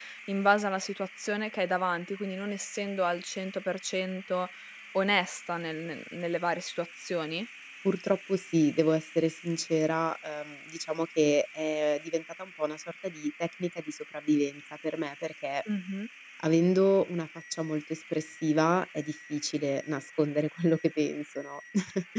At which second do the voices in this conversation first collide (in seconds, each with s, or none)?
none